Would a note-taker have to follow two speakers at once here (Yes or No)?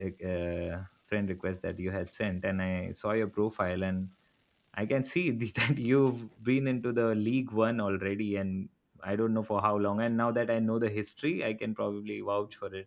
No